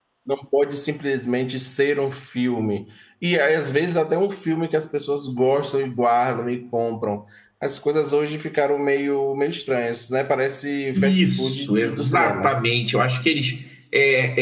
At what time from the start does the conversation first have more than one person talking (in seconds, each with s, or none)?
10.9 s